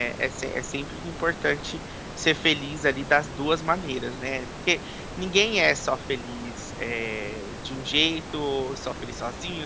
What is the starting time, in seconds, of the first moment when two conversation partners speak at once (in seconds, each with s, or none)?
none